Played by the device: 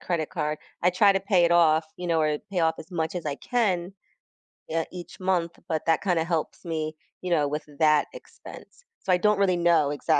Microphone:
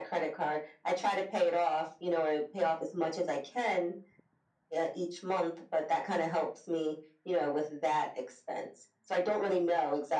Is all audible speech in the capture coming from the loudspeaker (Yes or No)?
Yes